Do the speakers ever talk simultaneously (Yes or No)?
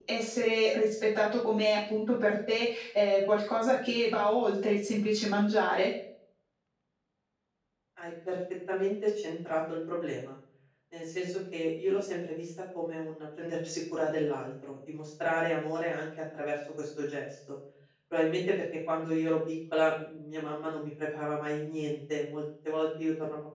No